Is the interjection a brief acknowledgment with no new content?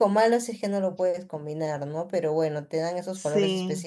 Yes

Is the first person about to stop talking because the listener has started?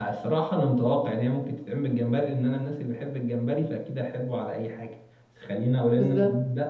No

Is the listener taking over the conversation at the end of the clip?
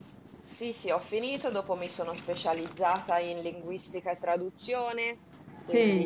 No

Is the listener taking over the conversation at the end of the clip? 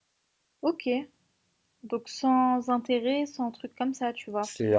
Yes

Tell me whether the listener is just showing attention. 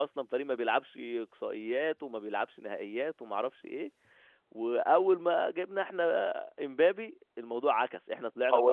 No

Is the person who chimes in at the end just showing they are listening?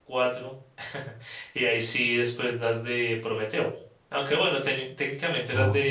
Yes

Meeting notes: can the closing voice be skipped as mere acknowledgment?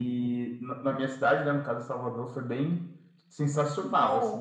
No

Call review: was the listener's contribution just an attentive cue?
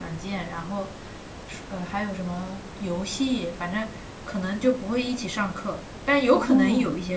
Yes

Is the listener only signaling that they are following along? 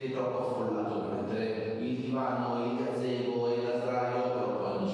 No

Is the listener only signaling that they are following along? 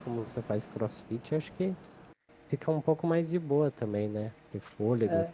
No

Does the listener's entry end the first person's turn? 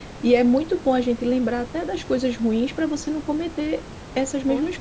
Yes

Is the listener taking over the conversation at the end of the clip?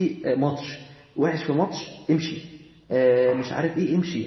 No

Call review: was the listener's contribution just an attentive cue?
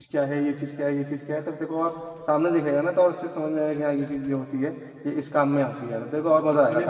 No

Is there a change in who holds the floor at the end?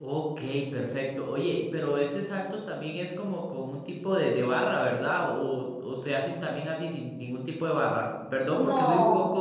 No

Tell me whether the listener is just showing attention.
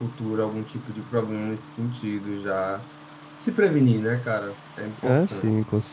No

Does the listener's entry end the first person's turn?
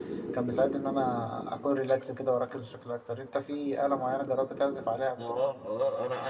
Yes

